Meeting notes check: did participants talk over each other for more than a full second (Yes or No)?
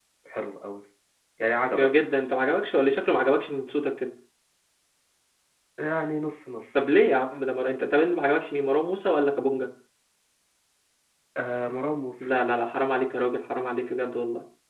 No